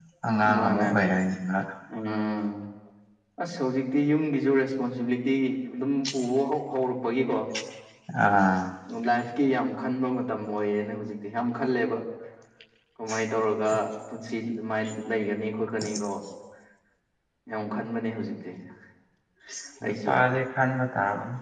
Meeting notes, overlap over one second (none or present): none